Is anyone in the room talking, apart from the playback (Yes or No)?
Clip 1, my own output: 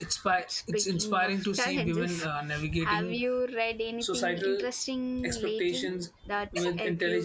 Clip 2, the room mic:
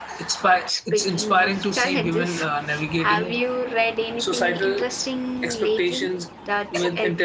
No